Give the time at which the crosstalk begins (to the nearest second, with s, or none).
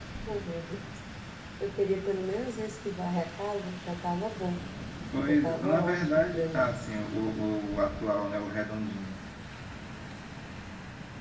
5 s